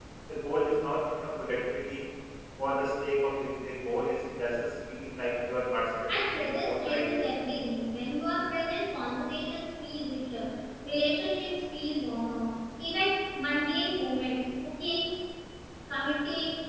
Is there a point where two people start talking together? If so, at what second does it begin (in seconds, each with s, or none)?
6.1 s